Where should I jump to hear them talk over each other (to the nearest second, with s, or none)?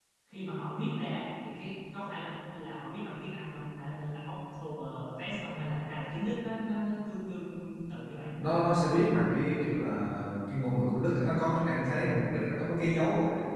none